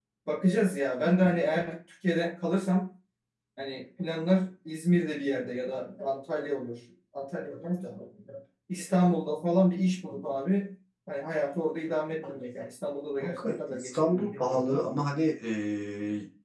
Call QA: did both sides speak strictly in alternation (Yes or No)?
No